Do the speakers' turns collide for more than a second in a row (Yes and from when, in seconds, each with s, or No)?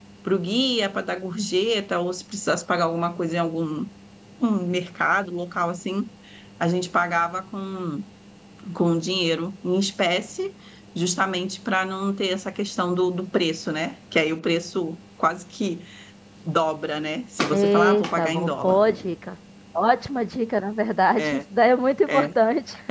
Yes, from 17.5 s